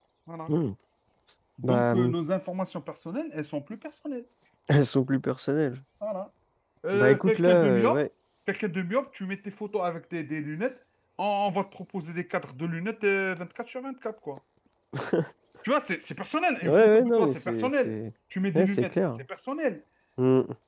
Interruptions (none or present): present